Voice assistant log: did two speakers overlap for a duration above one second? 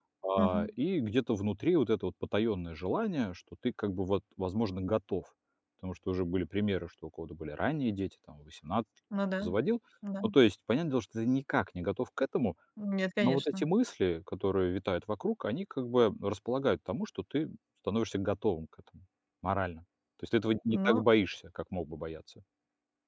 No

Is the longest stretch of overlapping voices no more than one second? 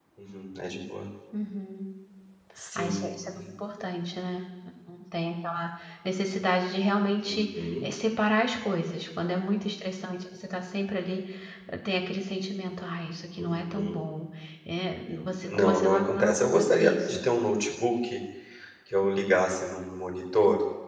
No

